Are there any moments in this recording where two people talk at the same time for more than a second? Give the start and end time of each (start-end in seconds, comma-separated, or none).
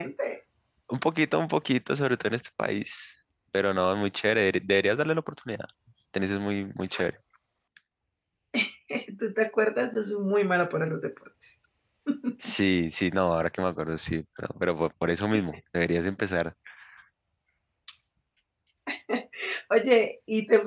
none